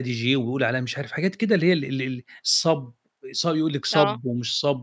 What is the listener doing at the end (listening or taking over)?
listening